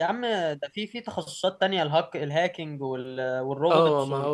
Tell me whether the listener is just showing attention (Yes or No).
No